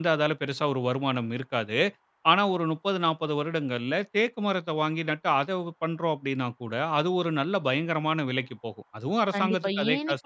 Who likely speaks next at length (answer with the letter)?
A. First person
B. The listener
B